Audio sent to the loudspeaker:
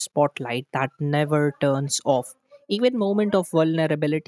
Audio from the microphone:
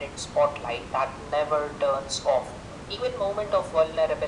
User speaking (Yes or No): No